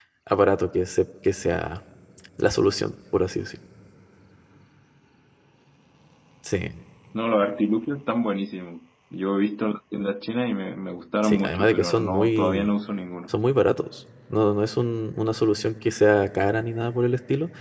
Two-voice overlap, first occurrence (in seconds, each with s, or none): 11.2 s